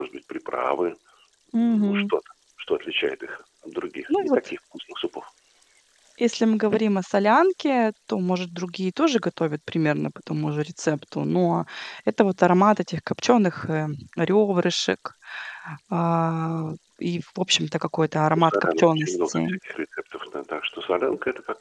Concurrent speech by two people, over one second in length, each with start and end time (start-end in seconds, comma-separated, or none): 18.4-19.6